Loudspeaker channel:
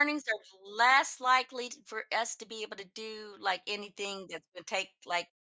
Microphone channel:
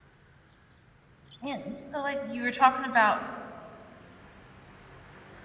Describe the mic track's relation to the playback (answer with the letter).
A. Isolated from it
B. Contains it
A